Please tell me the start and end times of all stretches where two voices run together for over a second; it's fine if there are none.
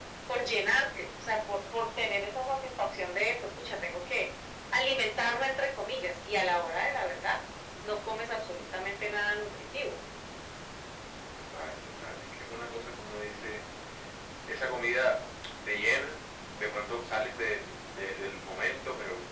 none

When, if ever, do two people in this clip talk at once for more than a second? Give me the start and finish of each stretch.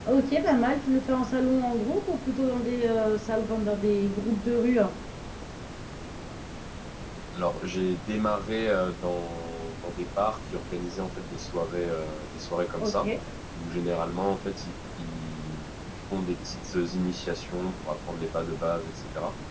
none

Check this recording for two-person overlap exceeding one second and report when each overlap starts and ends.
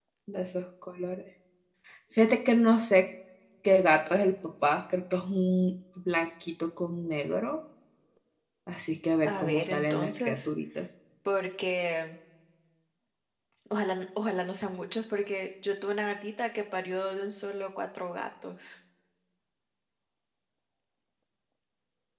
9.2-10.5

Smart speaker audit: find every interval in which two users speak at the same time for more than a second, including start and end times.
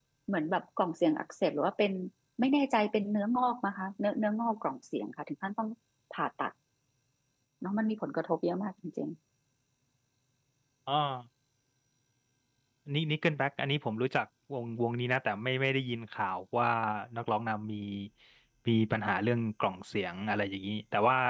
none

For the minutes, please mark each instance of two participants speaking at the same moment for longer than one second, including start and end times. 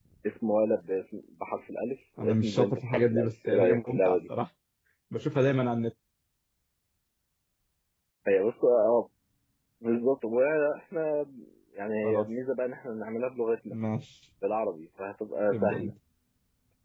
2.2-4.2

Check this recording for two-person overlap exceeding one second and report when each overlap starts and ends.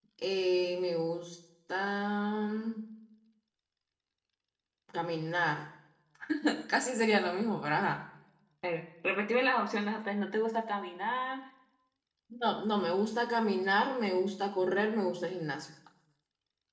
none

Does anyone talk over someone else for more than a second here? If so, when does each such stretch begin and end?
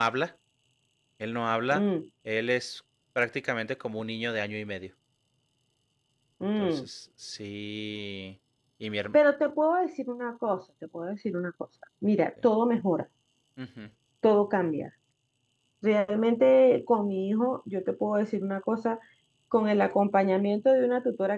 none

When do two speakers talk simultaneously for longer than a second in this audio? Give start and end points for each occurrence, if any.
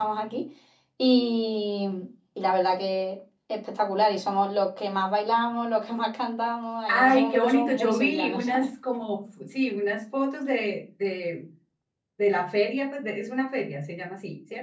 6.9-8.7

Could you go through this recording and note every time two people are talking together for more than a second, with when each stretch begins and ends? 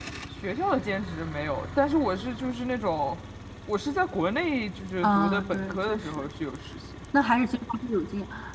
5.0-6.3

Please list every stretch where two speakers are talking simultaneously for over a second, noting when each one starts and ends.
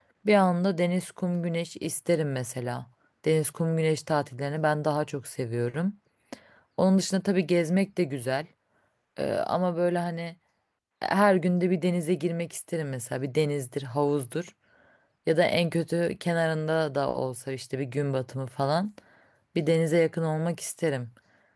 none

